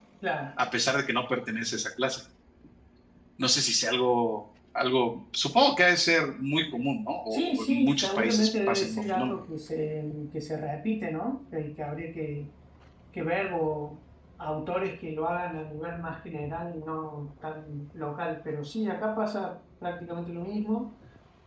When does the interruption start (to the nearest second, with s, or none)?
7 s